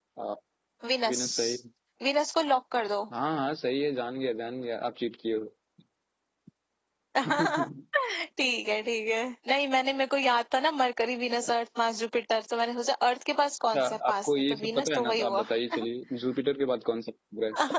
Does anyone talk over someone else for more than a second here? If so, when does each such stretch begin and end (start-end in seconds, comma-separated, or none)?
13.8-15.4